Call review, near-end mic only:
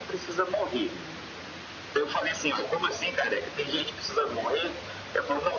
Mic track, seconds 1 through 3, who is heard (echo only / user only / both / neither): echo only